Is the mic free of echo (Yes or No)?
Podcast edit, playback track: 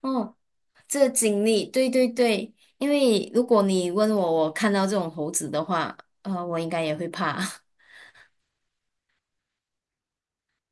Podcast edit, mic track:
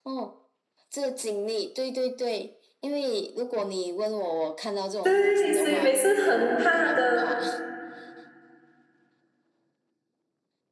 No